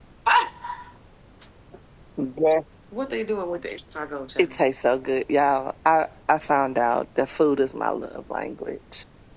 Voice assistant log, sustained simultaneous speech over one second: none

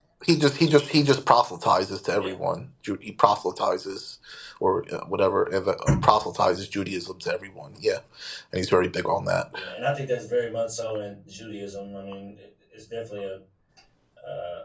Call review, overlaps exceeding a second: none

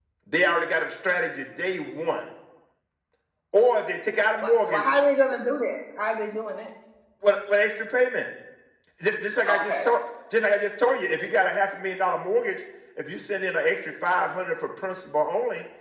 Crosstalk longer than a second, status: none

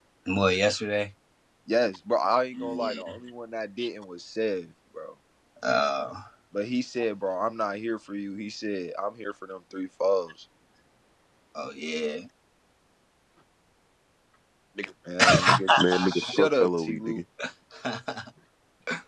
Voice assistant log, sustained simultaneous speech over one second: present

